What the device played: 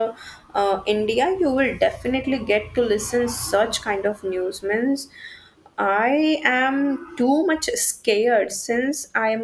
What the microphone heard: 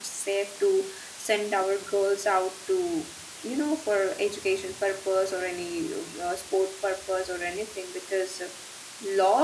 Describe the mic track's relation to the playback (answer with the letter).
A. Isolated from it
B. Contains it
A